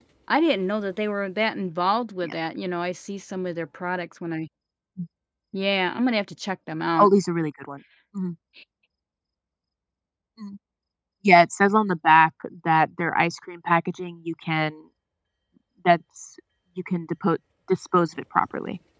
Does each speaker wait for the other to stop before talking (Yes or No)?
Yes